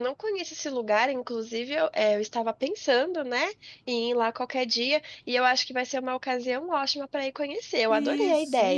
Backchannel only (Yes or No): No